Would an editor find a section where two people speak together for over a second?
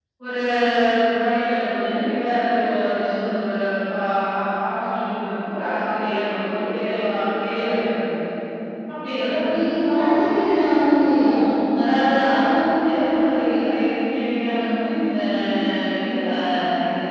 No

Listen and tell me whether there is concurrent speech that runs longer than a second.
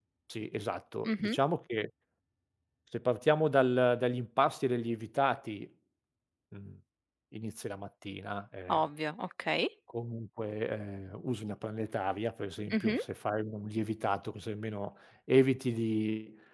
No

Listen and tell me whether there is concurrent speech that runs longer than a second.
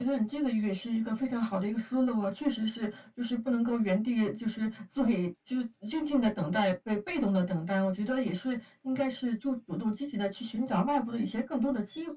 No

